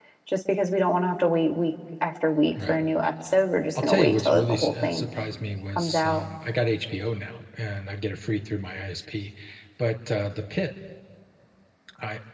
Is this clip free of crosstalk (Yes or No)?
No